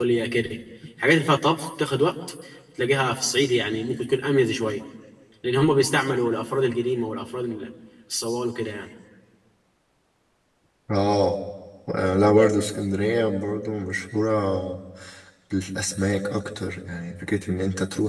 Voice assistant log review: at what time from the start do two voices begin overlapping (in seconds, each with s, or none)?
none